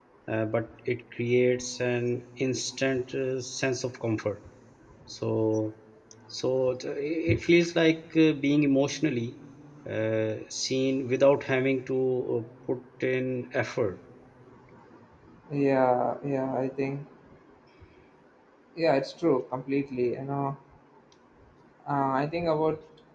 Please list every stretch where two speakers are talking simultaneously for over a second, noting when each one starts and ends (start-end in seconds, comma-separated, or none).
none